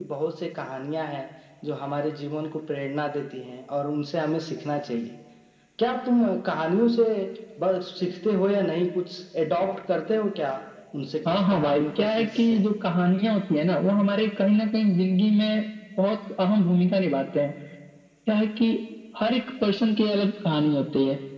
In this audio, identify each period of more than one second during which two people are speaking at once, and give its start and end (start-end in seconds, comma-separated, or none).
11.3-12.6